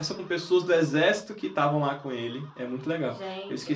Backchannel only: No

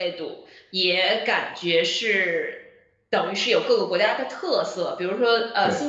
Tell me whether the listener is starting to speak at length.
No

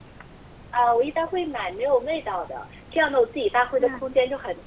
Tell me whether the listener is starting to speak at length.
No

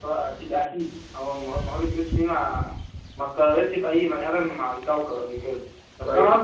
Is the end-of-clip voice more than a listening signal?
No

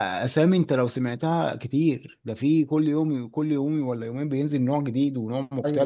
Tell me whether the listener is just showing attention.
No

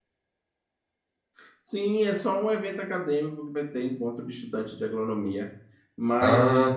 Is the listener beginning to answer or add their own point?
No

